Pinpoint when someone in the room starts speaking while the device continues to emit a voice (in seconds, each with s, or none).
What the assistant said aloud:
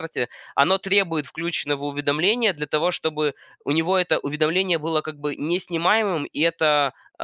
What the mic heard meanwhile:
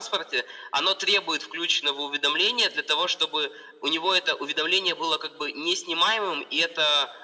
none